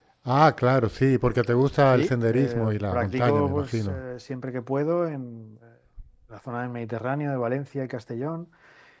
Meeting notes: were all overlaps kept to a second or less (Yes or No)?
No